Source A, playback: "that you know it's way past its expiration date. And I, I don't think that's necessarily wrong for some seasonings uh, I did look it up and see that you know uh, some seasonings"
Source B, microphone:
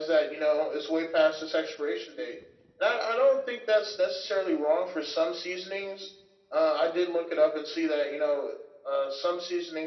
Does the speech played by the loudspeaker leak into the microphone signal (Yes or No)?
Yes